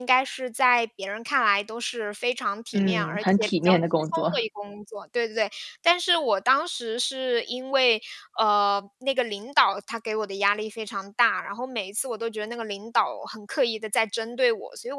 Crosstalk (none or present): present